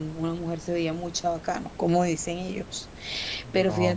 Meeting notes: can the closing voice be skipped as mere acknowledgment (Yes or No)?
Yes